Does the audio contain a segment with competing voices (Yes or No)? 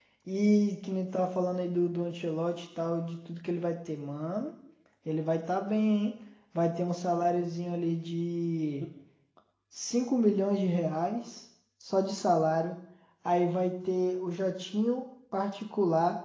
No